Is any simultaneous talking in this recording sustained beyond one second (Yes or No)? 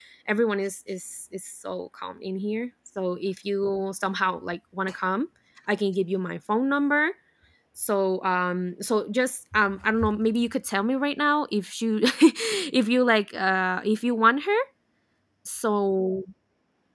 No